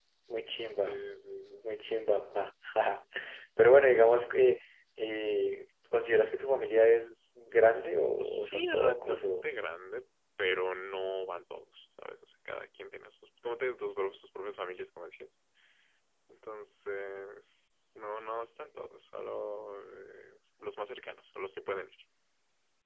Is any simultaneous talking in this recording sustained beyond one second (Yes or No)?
Yes